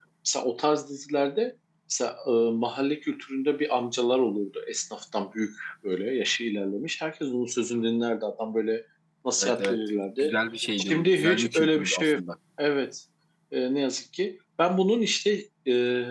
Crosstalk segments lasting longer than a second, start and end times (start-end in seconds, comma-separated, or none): 10.8-12.2